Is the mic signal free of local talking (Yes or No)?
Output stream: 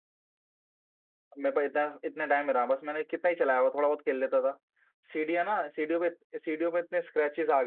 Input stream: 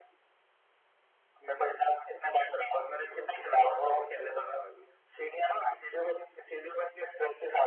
No